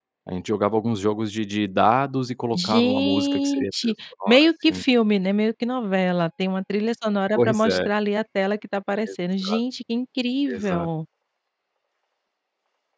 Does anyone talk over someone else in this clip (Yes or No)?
Yes